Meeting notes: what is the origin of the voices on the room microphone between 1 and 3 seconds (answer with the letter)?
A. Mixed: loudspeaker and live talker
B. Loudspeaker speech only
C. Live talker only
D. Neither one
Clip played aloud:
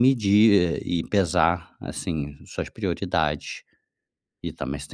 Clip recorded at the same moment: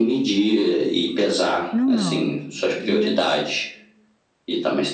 A